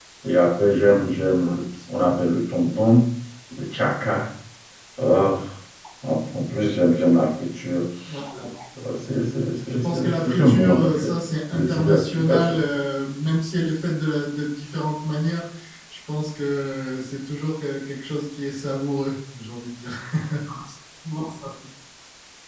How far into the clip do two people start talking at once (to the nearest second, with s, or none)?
10 s